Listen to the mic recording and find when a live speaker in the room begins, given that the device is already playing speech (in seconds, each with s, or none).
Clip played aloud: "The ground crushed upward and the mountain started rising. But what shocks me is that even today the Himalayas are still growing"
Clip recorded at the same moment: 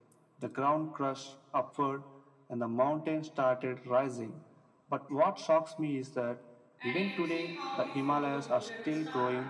6.8 s